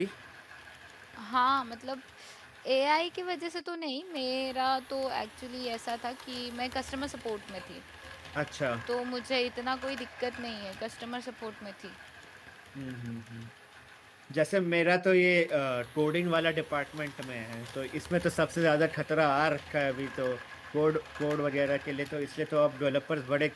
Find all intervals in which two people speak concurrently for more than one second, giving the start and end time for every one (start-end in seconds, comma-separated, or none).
none